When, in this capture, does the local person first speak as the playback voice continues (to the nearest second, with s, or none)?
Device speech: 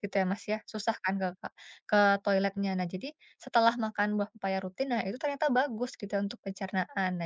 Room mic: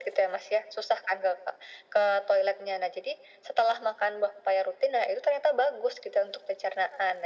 none